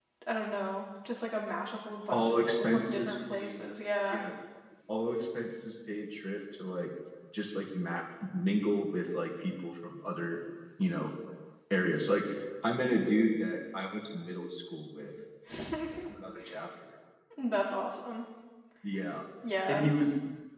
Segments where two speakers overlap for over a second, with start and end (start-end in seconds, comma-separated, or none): 2.1-3.6